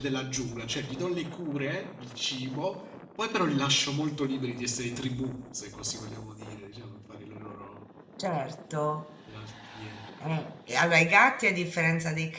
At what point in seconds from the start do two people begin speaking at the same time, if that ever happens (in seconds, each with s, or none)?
none